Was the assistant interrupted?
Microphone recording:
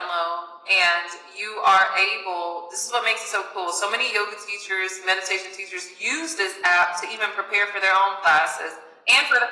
No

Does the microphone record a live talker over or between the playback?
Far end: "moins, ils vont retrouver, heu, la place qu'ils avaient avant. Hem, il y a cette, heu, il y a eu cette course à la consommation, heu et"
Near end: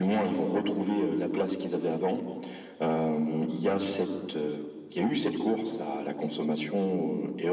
No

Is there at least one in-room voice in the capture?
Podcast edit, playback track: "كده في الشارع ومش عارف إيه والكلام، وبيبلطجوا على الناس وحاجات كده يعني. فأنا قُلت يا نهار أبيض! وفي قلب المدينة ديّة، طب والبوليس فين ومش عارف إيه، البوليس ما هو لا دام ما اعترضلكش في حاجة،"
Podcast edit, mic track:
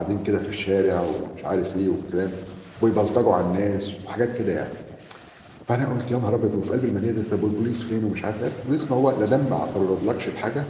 No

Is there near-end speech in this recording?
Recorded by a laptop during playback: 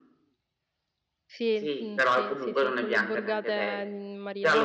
Yes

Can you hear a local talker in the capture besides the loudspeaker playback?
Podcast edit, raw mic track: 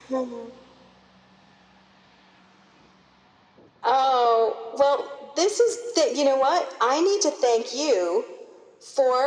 No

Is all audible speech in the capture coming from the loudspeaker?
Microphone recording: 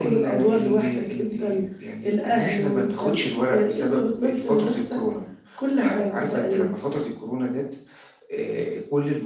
Yes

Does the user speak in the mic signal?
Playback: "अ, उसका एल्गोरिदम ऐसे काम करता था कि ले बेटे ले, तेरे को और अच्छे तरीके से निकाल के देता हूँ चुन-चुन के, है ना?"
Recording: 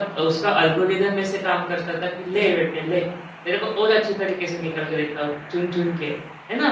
No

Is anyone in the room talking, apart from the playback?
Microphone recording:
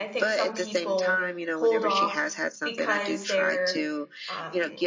Yes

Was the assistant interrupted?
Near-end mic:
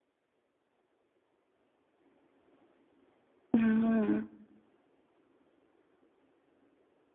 Yes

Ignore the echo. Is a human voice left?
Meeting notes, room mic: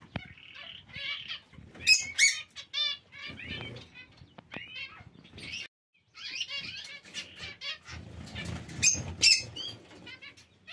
No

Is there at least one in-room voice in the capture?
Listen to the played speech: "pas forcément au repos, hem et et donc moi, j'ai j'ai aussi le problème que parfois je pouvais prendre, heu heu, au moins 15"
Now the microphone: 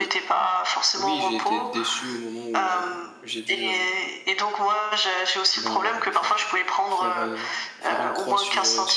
Yes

